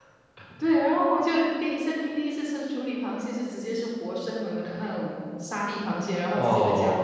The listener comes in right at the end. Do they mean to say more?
Yes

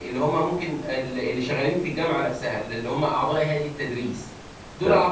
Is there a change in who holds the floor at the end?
No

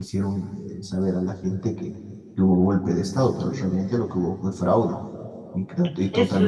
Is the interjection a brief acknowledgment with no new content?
No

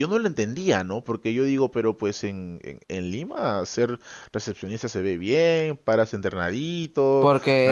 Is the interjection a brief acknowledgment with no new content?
No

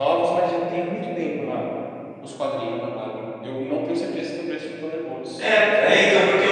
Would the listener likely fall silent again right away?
No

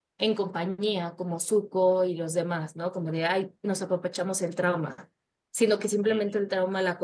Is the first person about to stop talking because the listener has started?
No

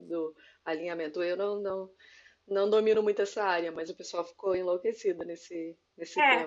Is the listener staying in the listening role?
No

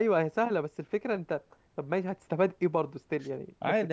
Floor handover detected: Yes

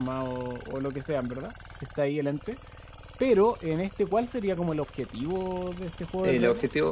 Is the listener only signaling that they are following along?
No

